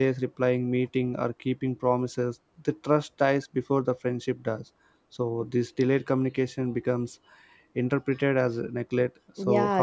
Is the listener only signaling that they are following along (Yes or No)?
No